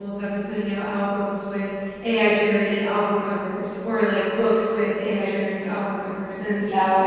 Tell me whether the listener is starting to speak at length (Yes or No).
No